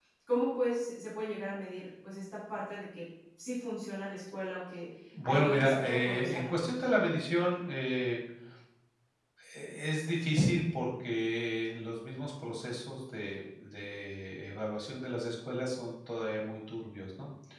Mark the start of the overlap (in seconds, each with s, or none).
5.1 s